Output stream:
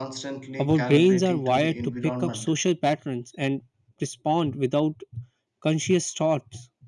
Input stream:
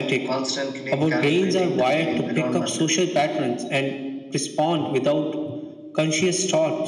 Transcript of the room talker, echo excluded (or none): none